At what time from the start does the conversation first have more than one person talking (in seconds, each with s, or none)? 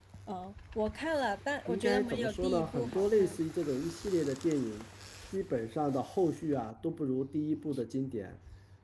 1.7 s